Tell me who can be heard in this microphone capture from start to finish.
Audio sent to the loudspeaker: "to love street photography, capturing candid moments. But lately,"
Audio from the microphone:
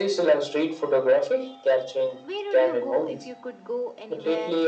both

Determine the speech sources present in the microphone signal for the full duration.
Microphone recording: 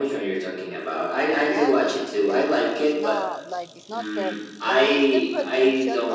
both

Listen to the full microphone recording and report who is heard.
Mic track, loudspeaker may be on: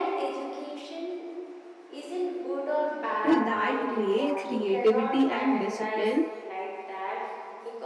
both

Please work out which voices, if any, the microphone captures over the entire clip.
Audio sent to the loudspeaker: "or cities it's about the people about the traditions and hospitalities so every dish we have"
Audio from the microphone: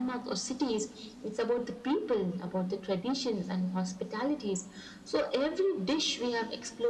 echo only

